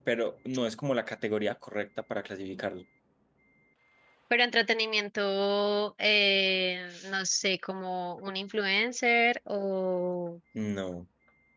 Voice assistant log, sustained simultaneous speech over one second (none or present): none